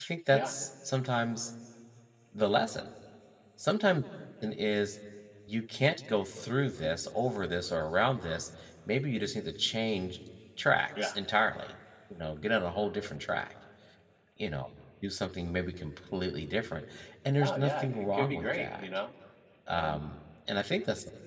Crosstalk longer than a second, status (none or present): present